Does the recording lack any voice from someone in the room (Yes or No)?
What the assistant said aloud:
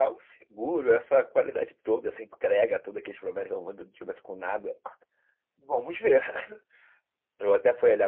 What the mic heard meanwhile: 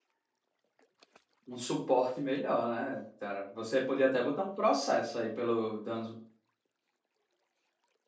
No